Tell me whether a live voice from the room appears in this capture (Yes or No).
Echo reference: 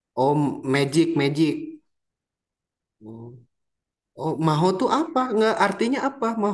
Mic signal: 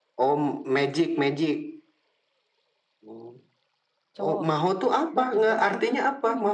Yes